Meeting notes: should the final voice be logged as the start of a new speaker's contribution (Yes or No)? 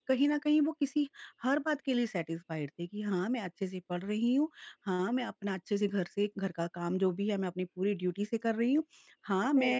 No